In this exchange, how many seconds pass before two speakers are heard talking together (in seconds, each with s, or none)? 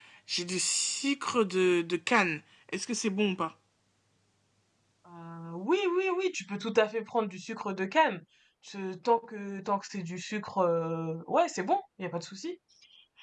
none